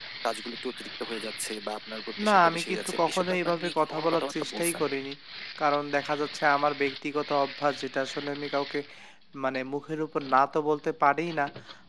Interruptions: present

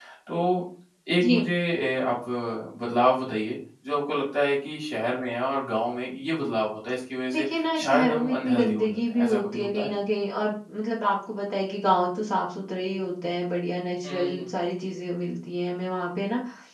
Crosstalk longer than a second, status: present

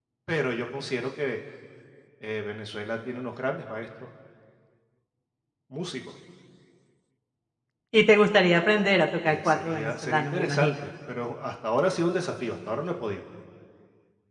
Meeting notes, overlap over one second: present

